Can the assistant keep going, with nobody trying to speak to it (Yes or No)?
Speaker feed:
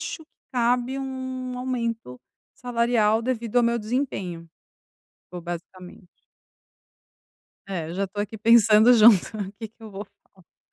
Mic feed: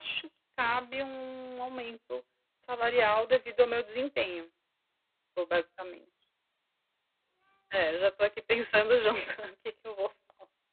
Yes